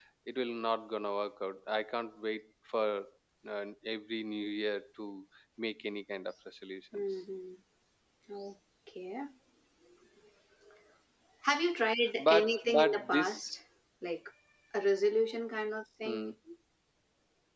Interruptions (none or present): present